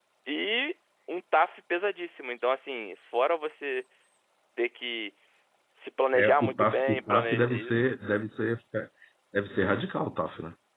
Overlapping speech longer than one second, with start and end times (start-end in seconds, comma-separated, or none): 6.1-7.9